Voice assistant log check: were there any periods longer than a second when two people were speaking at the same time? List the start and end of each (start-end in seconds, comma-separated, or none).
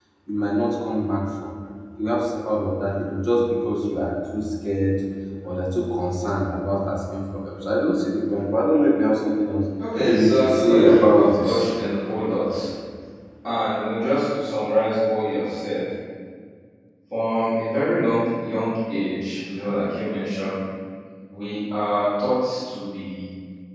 10.0-11.7